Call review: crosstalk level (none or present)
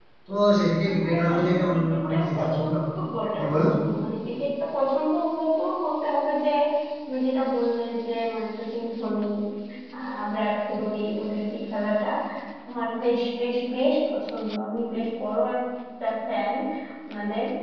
present